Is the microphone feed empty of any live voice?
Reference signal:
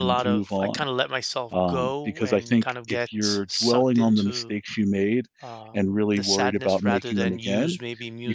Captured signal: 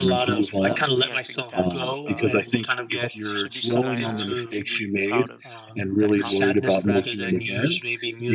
No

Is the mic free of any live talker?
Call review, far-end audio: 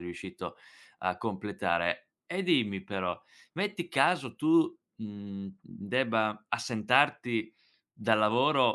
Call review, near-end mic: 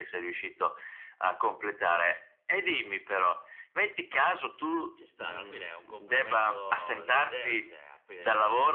No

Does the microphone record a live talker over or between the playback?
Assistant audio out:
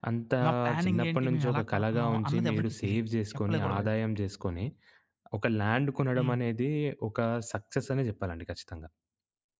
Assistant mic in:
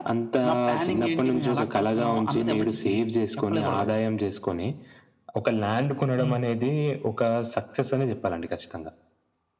No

